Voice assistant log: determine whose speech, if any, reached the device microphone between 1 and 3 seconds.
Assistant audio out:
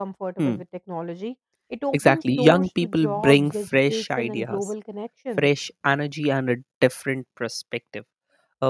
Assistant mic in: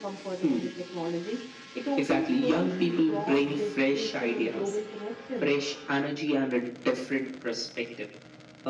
echo only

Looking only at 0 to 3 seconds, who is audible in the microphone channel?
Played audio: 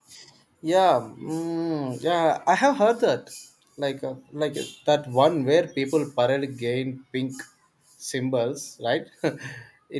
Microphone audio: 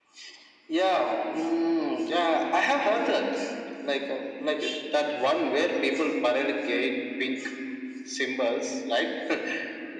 echo only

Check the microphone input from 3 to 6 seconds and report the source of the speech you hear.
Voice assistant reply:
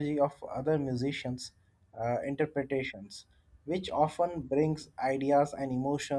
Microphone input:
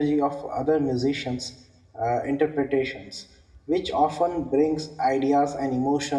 echo only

